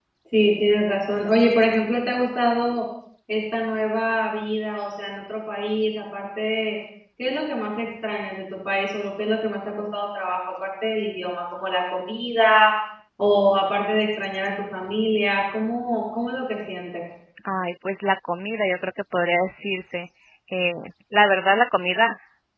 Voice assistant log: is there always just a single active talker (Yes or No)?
Yes